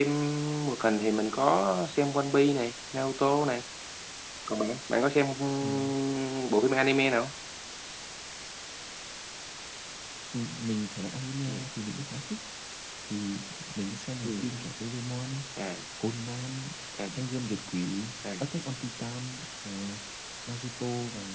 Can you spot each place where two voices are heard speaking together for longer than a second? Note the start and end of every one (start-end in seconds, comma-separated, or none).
none